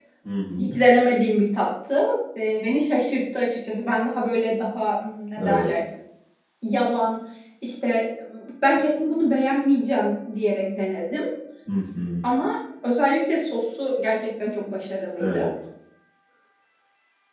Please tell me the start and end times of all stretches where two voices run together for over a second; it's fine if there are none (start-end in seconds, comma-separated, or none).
none